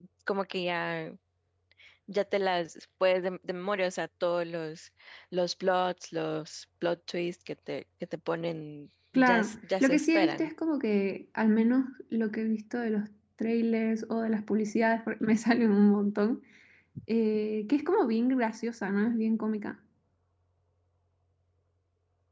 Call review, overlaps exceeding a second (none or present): present